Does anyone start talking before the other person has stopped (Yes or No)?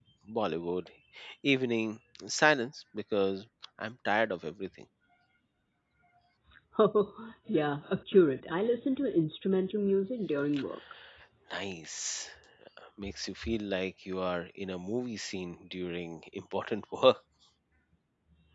No